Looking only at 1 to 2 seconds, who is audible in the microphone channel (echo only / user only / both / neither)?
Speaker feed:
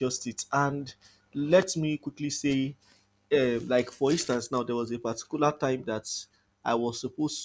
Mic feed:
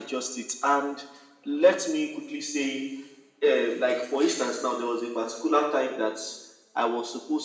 echo only